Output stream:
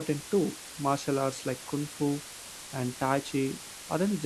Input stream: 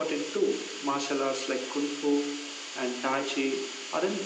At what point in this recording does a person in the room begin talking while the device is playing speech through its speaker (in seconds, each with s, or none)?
none